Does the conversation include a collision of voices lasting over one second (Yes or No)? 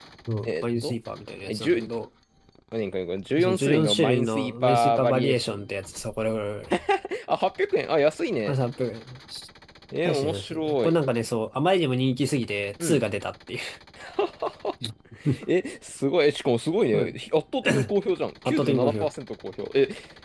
Yes